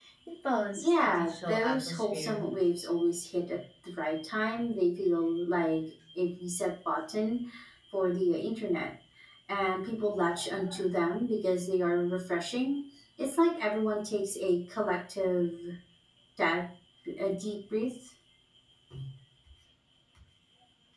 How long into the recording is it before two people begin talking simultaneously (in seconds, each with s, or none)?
0.8 s